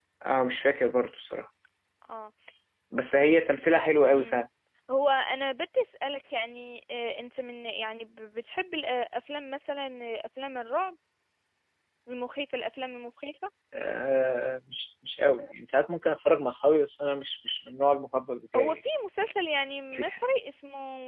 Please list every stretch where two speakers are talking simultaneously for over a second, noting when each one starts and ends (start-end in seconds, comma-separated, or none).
none